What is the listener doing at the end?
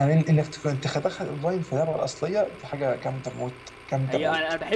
taking over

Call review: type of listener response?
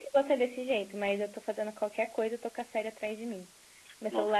listening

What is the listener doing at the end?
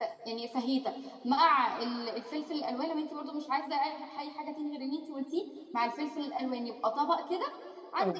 listening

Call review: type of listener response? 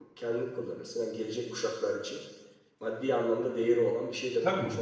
taking over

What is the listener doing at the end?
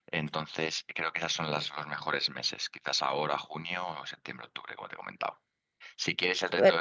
listening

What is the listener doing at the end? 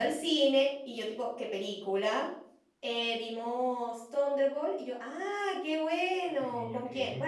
listening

